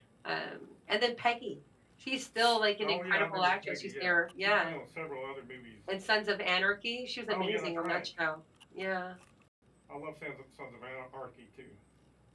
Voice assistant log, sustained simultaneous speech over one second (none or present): present